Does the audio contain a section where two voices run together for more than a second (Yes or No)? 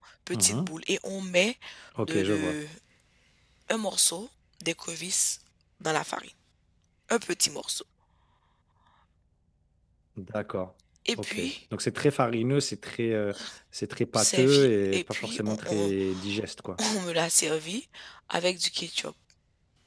Yes